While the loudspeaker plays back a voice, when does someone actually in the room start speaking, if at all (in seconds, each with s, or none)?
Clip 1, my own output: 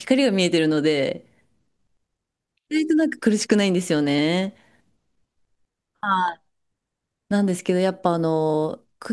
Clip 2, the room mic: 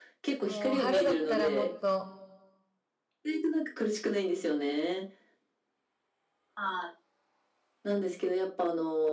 0.4 s